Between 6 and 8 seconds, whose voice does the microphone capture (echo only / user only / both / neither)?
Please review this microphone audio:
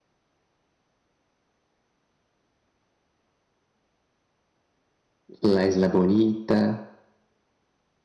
user only